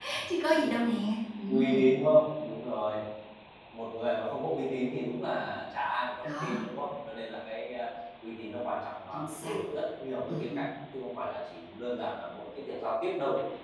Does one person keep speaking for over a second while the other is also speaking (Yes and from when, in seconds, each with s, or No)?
No